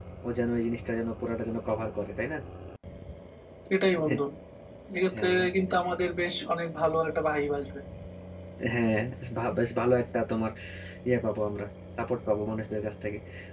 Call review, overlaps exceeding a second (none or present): none